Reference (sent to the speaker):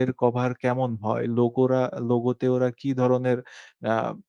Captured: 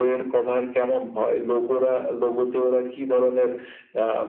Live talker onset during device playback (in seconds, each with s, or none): none